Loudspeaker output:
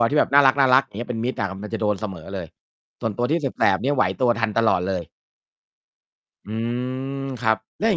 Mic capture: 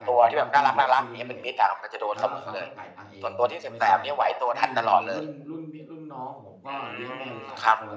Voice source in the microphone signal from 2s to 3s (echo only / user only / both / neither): both